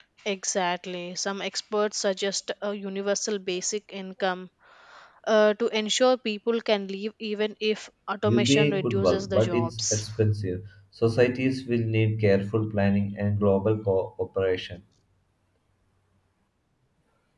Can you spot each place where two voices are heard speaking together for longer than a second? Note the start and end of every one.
8.2-10.1

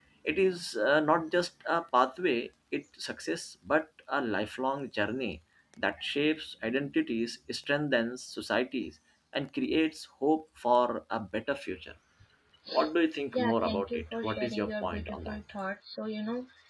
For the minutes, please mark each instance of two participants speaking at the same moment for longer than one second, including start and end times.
13.3-15.4

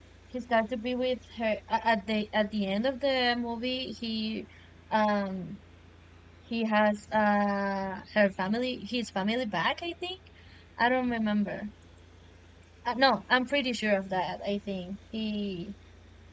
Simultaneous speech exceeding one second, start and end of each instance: none

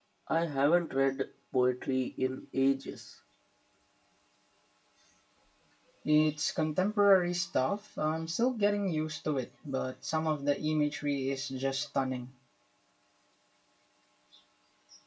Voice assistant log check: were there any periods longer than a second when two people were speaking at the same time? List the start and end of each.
none

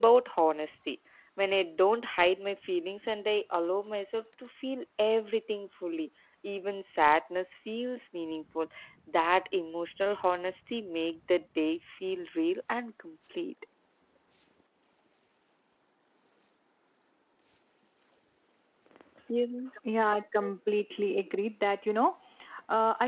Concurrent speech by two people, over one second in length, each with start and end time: none

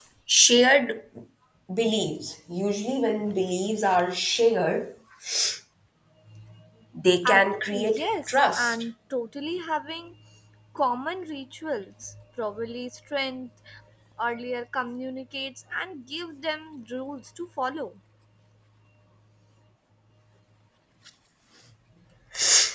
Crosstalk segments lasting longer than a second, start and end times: 7.2-8.8

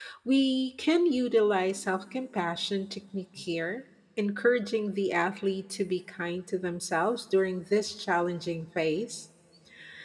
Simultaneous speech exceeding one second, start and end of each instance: none

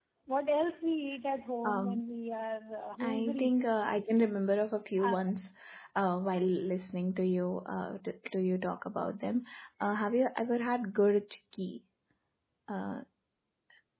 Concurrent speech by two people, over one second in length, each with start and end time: none

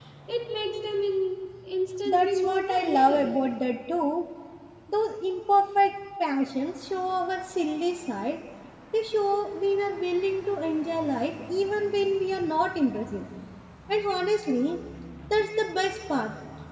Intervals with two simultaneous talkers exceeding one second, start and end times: 2.0-3.4

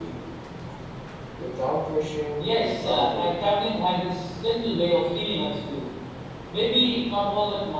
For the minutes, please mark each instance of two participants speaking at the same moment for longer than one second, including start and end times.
2.4-3.8

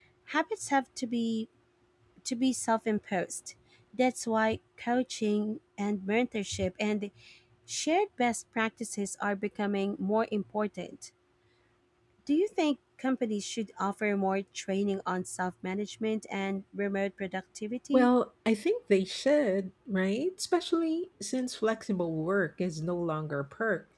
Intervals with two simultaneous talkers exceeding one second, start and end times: none

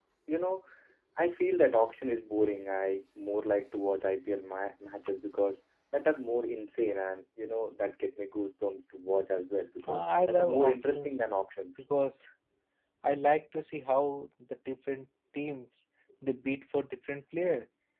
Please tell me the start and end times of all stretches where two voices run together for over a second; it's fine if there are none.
9.9-11.3

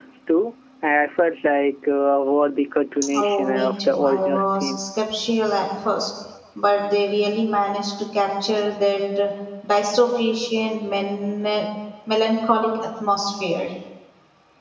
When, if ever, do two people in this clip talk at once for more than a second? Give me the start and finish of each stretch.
3.2-4.8

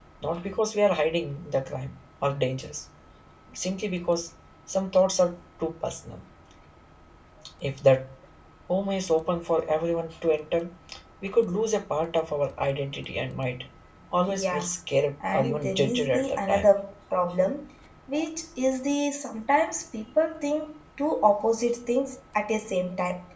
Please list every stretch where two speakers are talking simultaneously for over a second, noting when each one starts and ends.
15.3-16.7

